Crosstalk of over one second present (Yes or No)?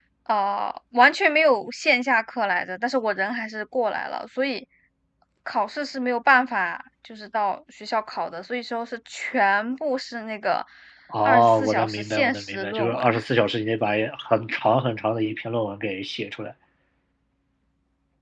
Yes